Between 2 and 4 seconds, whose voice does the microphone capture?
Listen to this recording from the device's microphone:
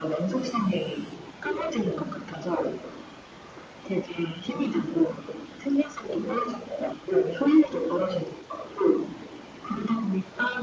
echo only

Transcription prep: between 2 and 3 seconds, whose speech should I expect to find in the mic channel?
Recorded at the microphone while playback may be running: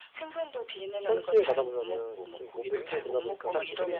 both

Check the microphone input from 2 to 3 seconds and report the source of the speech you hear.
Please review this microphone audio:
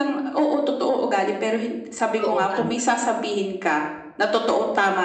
both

